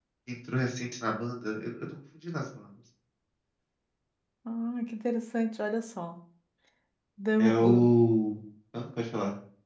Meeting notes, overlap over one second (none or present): none